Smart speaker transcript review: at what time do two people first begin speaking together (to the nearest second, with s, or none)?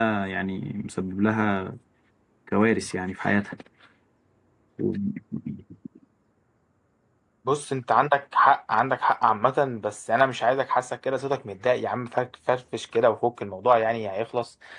none